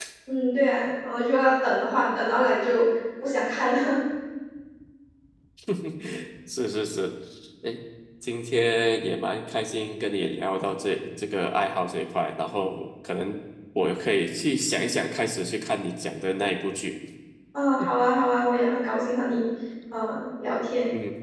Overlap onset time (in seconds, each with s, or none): none